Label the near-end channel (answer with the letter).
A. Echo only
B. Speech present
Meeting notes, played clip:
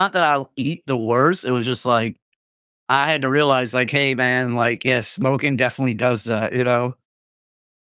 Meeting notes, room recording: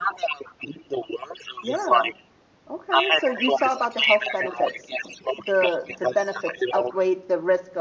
B